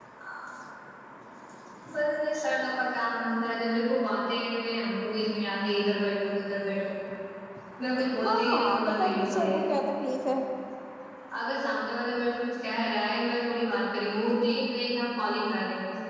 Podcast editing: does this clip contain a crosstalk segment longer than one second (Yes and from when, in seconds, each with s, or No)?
Yes, from 8.2 s